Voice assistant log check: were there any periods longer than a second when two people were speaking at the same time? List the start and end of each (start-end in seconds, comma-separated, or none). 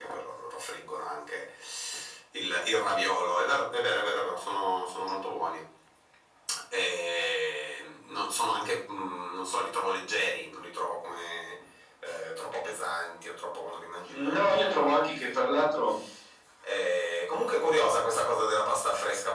14.3-15.7